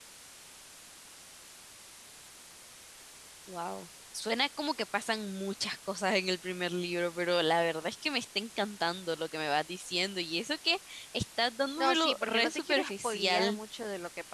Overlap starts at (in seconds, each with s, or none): 11.8 s